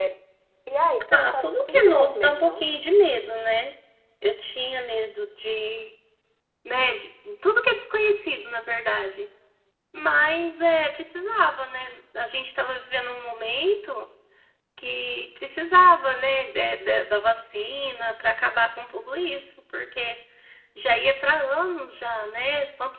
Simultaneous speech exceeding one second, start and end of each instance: 1.1-2.6

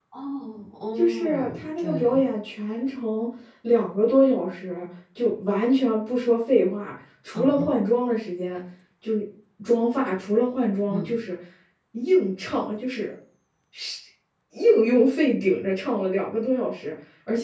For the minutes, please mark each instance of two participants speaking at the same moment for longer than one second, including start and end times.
1.0-2.2

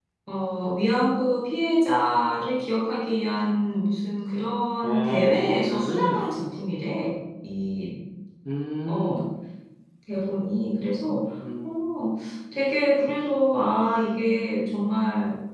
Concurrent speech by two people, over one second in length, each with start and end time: 4.8-6.3

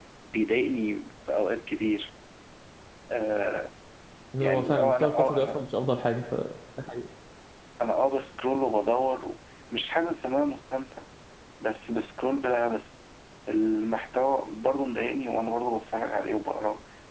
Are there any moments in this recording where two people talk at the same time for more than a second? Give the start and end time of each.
4.4-5.6

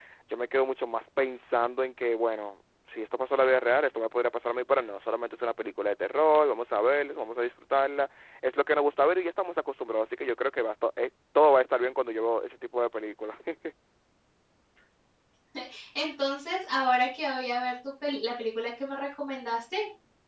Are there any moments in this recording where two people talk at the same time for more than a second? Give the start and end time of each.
none

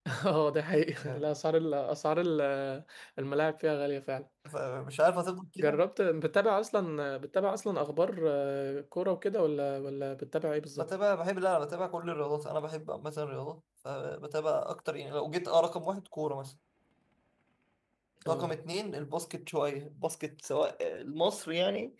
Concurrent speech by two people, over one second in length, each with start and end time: none

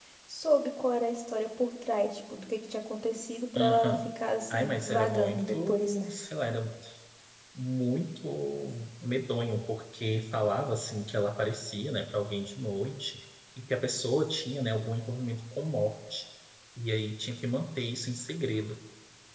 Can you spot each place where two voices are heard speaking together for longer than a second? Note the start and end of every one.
4.5-5.9

